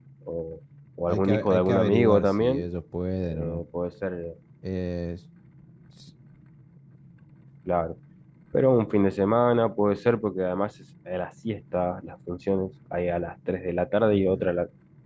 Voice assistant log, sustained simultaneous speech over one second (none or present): present